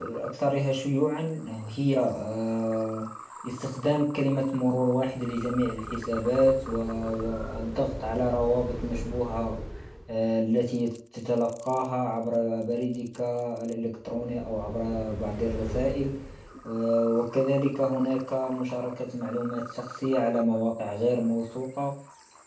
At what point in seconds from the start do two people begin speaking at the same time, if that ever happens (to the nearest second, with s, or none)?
none